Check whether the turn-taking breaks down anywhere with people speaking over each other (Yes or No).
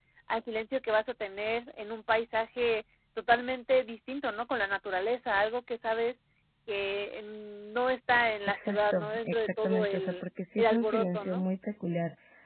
Yes